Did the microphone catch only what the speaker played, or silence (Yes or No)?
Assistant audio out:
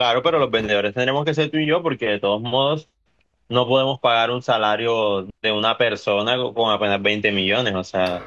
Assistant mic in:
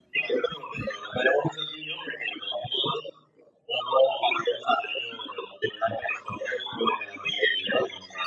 Yes